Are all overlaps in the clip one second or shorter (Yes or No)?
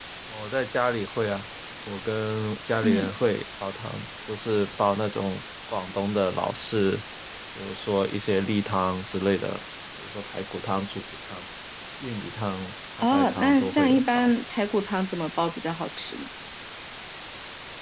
No